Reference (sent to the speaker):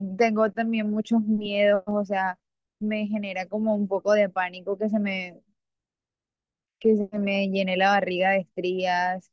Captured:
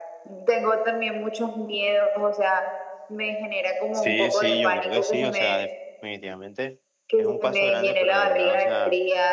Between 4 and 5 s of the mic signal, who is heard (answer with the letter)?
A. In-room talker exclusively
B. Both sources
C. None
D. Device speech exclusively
B